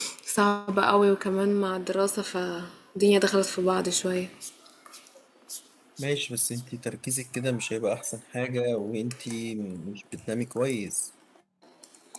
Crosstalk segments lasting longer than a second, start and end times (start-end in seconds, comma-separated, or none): none